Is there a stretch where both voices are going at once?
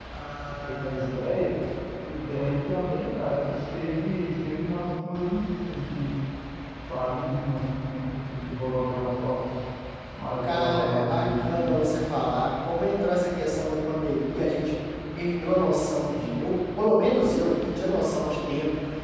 Yes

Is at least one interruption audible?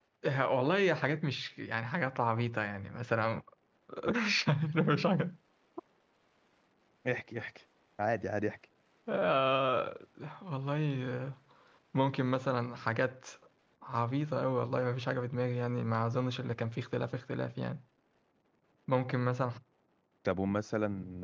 No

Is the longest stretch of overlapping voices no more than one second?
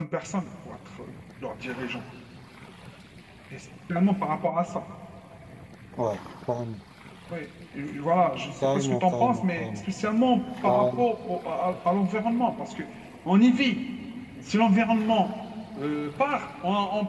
No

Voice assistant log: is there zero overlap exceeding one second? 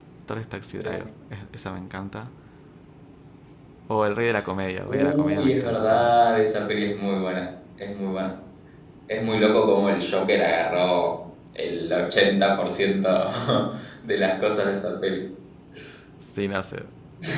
No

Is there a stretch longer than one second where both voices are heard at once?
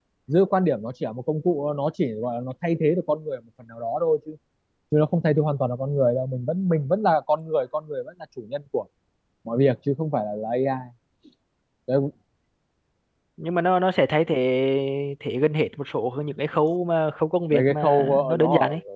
Yes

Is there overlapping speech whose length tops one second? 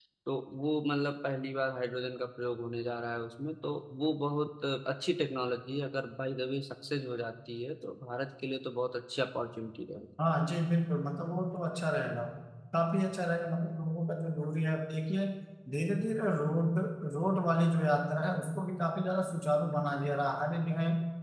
No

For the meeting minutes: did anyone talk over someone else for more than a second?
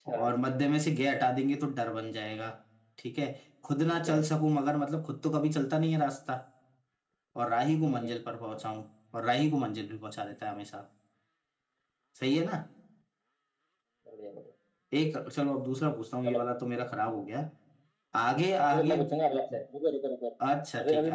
No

